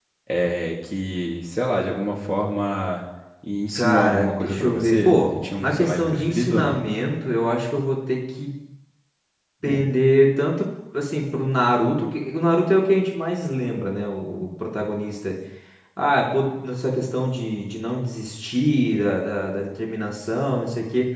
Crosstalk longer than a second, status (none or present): present